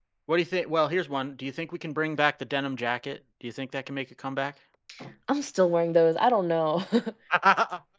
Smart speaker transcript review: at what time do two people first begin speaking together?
none

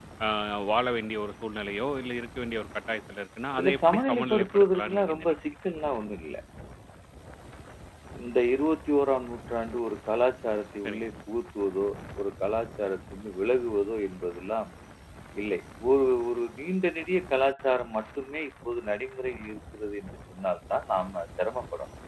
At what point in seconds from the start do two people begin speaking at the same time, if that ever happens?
3.6 s

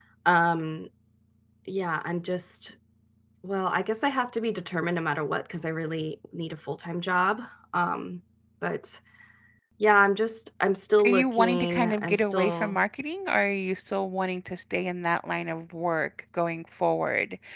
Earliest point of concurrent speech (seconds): 11.0 s

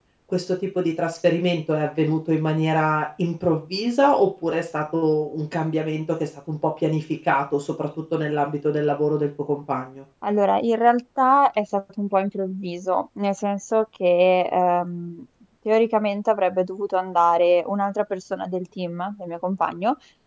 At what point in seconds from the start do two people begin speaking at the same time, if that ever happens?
none

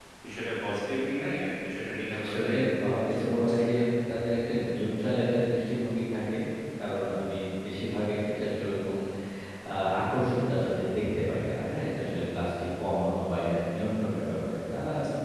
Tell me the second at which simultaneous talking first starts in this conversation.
2.0 s

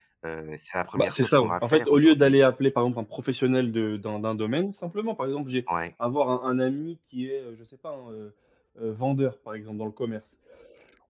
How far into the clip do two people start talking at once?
0.9 s

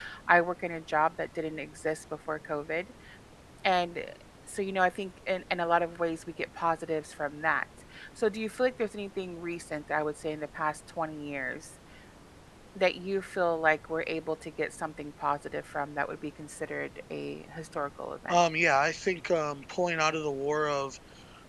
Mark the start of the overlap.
none

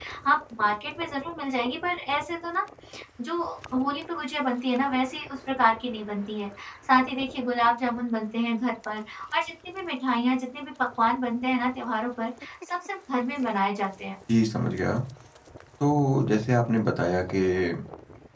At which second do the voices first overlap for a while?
none

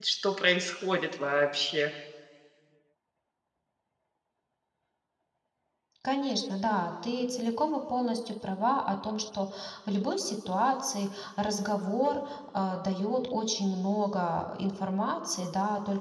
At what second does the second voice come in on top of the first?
none

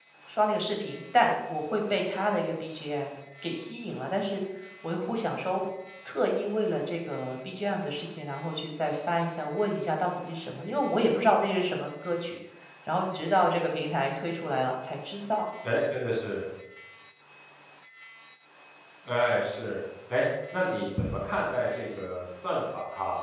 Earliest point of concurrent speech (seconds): none

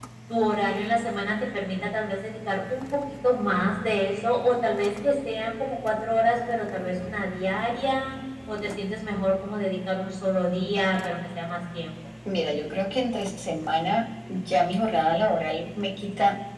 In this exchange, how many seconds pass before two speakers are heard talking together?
none

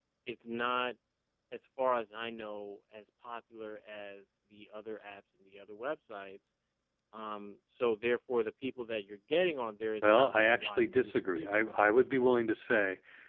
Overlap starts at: 10.0 s

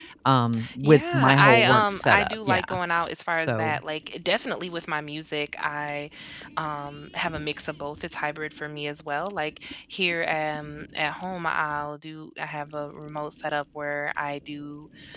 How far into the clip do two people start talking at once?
0.8 s

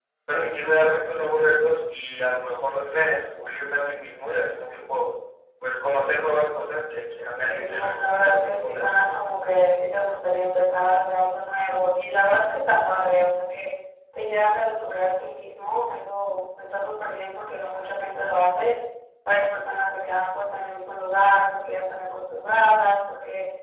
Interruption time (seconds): 7.2 s

